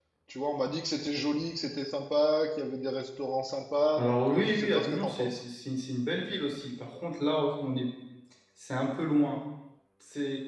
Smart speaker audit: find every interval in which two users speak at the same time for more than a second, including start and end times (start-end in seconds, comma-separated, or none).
4.0-5.4